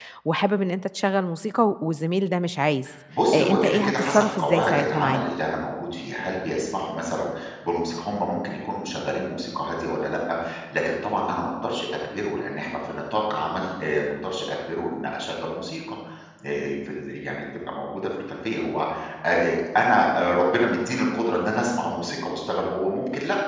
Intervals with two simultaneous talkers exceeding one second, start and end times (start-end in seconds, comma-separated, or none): 3.3-5.2